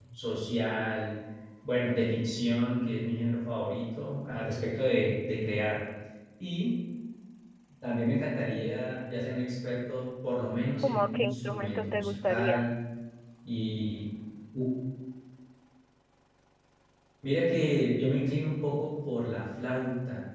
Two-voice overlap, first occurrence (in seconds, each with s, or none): 10.8 s